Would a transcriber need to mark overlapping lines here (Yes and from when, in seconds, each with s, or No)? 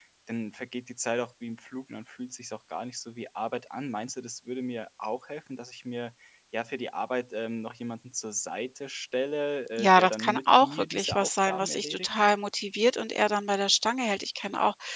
Yes, from 9.8 s